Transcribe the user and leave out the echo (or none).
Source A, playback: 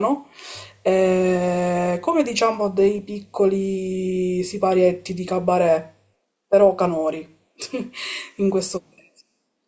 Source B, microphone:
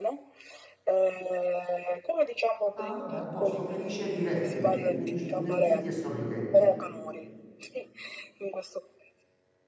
Ah, vabbè, a posto, felici e divertiti, felici, divertiti e sorridenti.